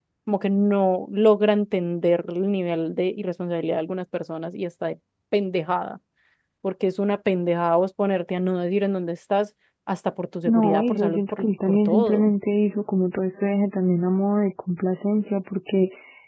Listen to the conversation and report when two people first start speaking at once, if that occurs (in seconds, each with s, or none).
10.4 s